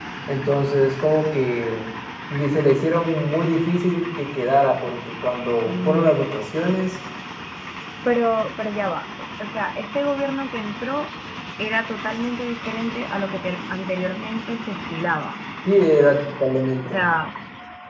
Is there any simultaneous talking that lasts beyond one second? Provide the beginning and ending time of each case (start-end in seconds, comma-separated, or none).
none